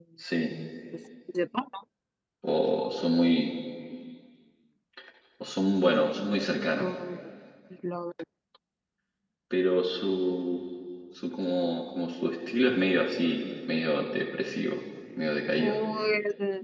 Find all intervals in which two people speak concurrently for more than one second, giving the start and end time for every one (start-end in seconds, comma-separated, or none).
none